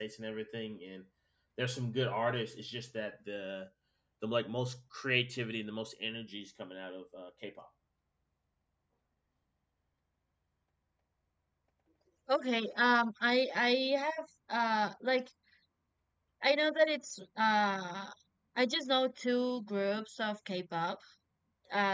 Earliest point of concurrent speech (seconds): none

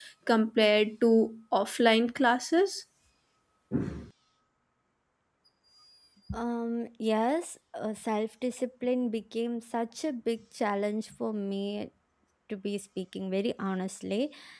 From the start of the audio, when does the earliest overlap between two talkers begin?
none

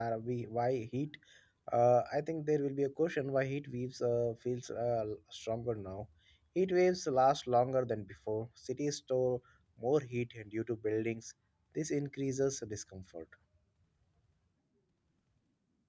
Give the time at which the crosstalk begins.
none

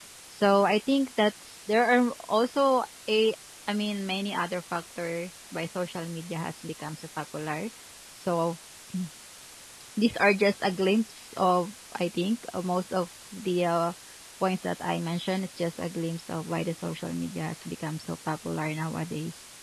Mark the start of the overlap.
none

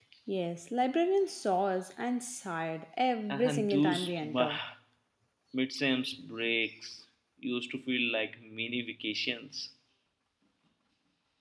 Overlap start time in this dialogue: 3 s

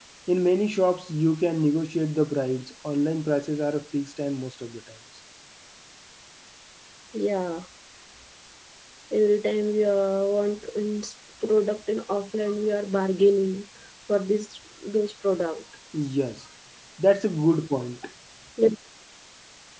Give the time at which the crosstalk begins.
none

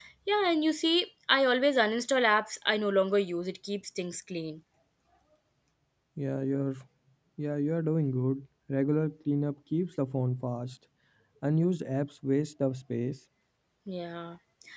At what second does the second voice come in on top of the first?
none

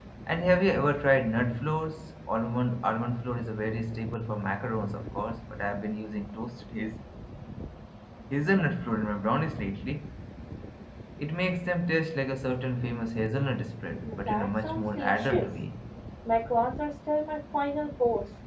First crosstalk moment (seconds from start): 14 s

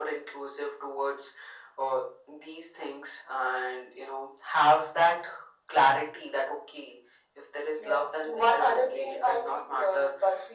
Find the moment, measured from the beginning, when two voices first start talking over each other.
8 s

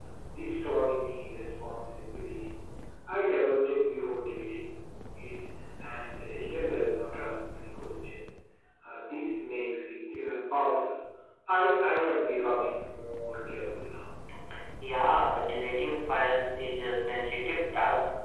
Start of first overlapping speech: none

